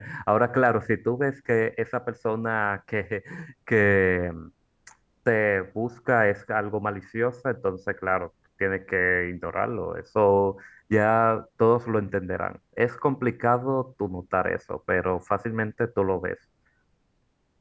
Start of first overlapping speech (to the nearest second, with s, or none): none